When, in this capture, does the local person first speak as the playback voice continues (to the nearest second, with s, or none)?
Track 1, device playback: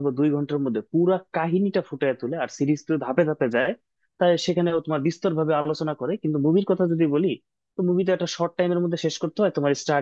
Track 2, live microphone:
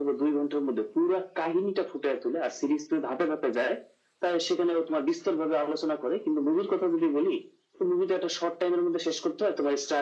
none